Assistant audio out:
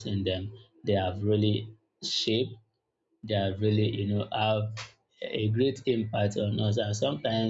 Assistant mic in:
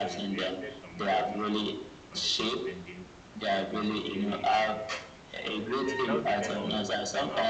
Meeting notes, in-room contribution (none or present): present